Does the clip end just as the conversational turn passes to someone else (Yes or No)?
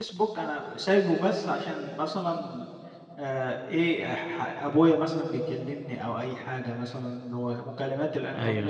No